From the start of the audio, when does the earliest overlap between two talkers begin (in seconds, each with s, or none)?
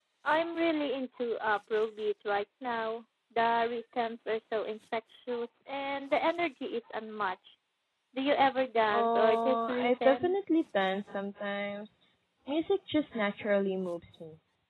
8.9 s